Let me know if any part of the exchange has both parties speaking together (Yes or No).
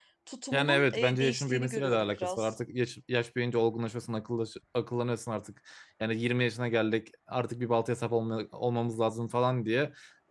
Yes